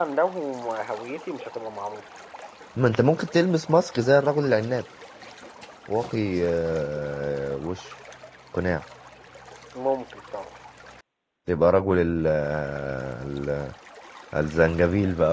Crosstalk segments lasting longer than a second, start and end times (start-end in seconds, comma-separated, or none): none